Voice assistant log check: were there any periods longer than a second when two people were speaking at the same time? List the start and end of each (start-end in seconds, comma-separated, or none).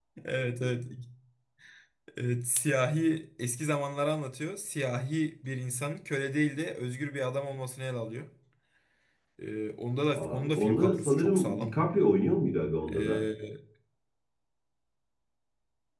10.2-11.7